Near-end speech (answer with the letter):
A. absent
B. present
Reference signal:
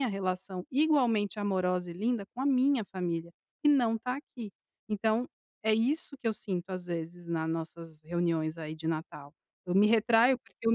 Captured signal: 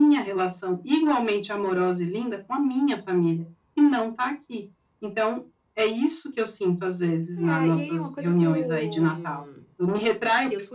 B